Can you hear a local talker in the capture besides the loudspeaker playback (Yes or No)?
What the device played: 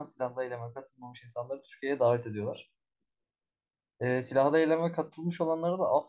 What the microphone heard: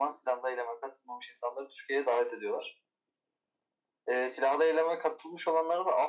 No